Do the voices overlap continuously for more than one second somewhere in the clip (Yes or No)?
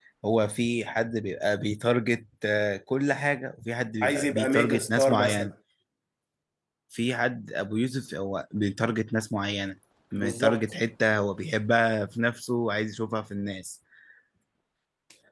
Yes